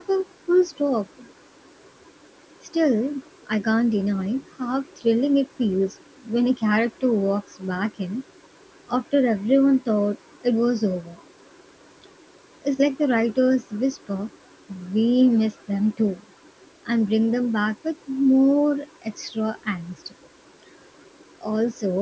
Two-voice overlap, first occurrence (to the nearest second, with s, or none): none